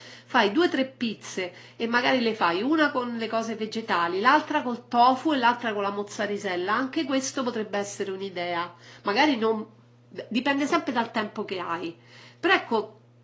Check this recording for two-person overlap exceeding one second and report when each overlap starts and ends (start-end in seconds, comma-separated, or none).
none